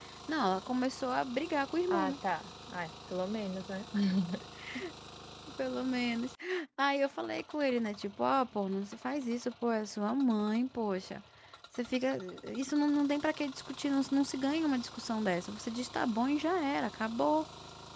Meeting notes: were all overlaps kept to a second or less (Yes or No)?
Yes